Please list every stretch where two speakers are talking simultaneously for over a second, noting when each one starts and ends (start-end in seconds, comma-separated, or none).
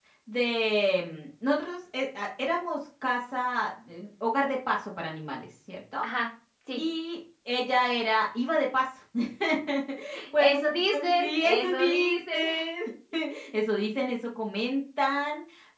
10.4-12.4